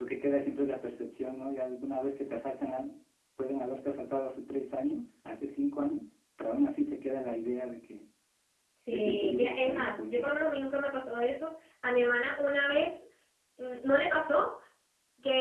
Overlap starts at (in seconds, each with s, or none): 8.9 s